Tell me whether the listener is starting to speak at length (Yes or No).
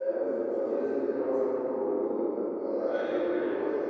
No